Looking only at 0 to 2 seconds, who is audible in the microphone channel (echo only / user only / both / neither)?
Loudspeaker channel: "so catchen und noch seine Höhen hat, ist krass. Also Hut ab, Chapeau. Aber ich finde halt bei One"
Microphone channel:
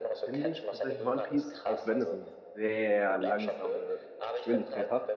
both